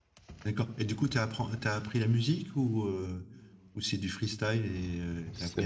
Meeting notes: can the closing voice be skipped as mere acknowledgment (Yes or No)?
No